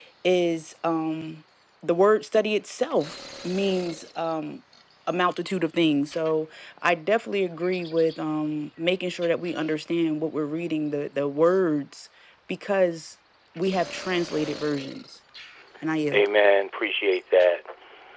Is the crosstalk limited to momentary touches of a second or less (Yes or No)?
Yes